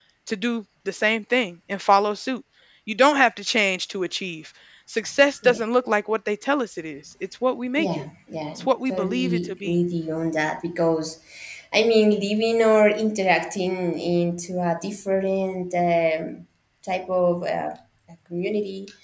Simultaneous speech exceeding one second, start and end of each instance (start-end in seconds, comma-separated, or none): 8.6-9.8